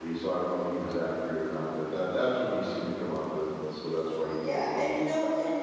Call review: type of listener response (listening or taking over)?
taking over